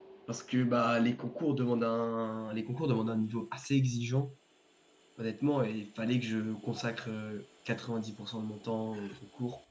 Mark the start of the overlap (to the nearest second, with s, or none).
none